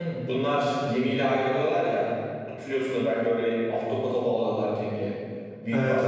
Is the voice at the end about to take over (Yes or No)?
Yes